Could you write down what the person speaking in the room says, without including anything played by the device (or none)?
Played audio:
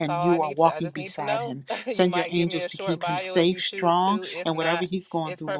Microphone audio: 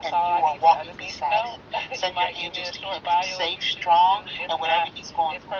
none